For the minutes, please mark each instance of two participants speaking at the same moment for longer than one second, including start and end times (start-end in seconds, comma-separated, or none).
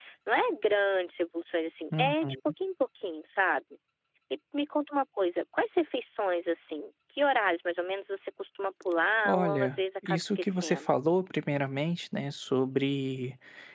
9.2-10.9